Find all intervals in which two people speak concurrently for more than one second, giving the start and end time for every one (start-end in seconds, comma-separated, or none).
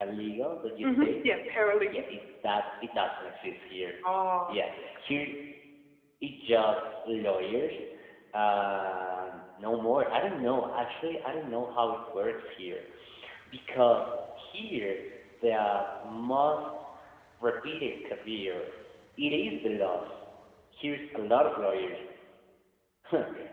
none